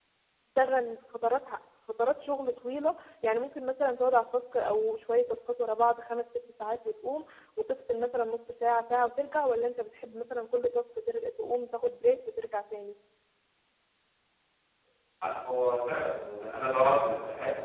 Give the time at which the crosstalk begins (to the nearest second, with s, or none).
none